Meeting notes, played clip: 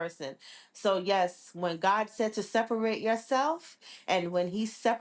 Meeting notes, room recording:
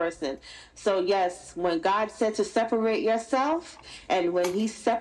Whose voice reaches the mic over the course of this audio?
echo only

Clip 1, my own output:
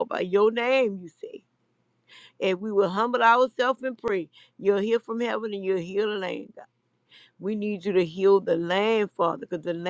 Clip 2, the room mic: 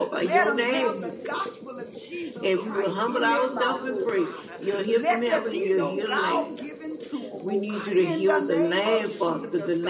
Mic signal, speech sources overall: both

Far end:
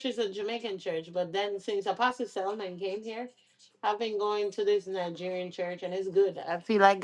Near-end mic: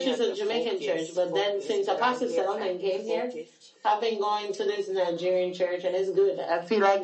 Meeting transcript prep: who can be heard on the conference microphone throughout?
both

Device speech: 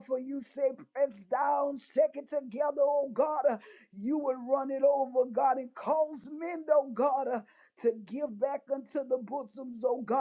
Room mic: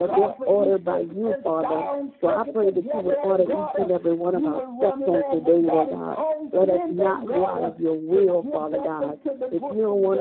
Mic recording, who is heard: both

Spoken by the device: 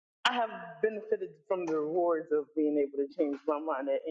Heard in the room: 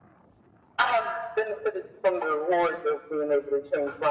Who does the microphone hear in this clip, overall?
echo only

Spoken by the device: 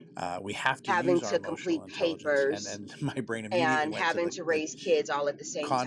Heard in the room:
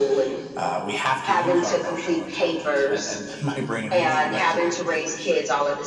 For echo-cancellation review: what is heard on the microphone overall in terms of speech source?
echo only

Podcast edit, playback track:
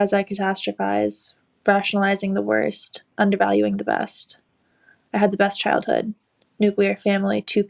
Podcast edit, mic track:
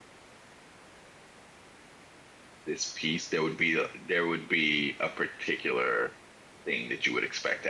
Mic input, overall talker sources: user only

